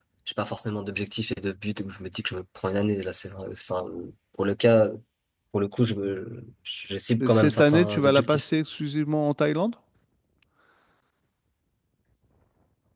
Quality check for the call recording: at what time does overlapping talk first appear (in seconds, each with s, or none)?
7.2 s